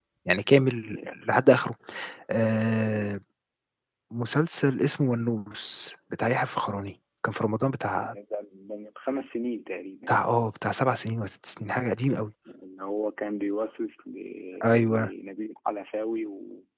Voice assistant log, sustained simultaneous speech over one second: none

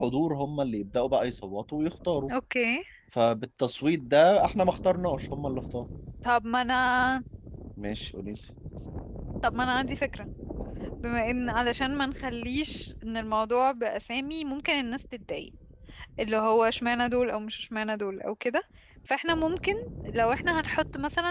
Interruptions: none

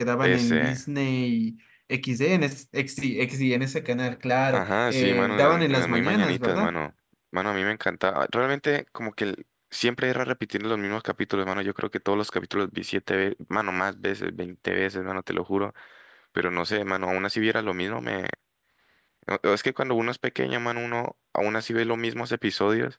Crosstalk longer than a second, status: present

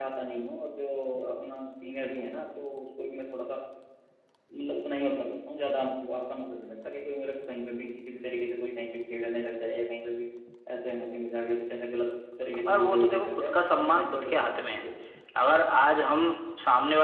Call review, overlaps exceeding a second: present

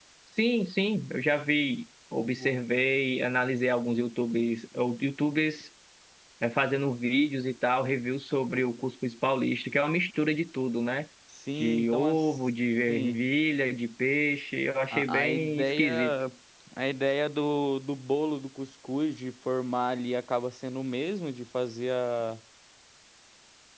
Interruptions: present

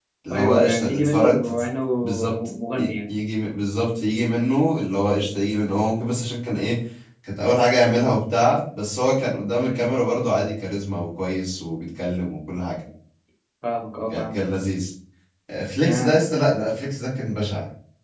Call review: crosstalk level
present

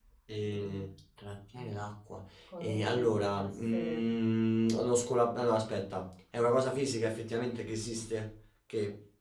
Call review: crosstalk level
present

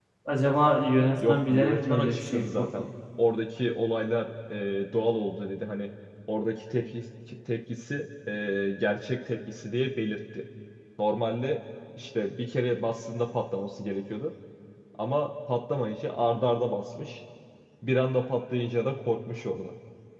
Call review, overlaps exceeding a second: present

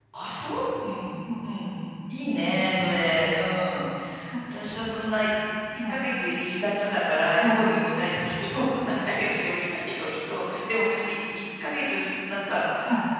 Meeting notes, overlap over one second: none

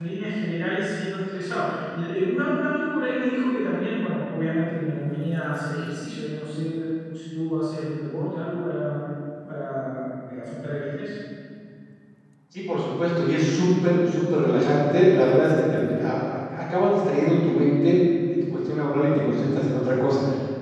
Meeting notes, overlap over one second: none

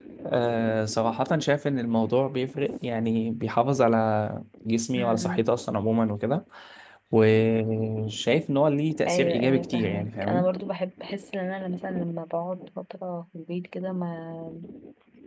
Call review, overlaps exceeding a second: present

